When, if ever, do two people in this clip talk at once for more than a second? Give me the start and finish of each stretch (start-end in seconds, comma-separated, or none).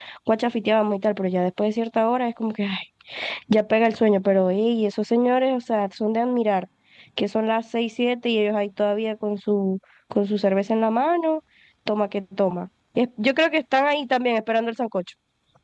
none